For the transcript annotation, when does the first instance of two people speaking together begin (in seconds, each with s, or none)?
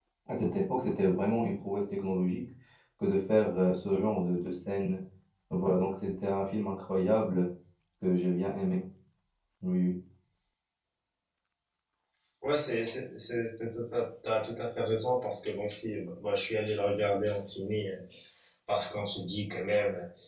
none